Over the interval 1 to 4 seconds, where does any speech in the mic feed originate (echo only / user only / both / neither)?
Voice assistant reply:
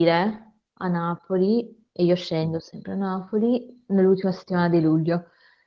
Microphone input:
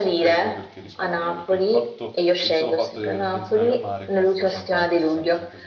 both